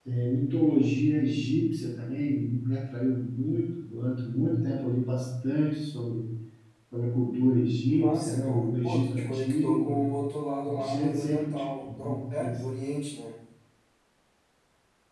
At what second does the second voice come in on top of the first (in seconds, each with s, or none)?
7.9 s